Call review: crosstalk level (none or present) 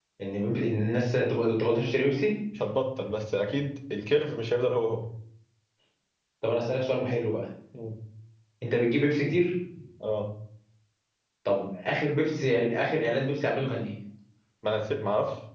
none